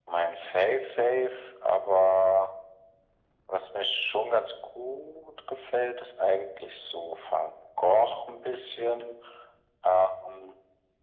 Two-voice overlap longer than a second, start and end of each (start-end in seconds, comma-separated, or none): none